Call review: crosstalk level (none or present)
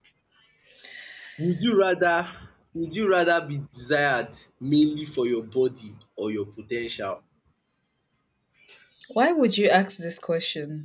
none